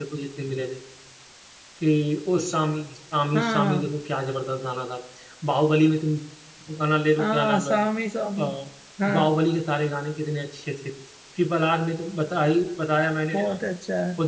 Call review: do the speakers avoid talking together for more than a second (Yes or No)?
Yes